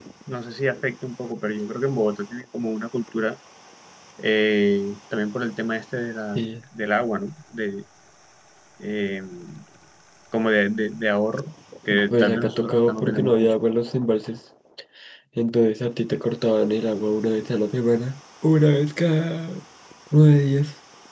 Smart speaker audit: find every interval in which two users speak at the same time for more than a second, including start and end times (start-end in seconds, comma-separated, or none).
12.1-13.5